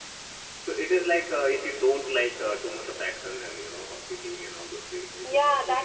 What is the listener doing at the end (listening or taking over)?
taking over